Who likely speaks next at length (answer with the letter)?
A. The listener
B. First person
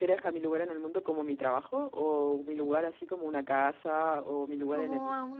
A